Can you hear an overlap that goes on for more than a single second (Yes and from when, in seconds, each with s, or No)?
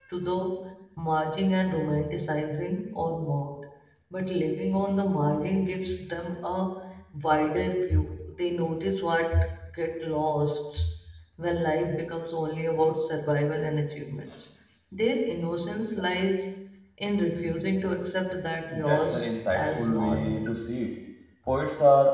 Yes, from 18.7 s